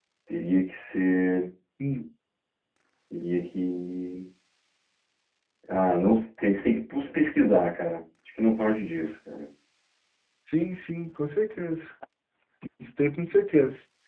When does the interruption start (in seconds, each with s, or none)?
none